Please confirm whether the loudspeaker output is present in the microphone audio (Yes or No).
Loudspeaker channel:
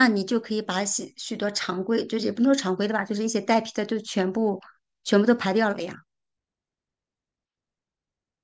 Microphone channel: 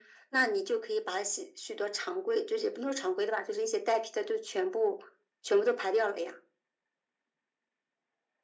Yes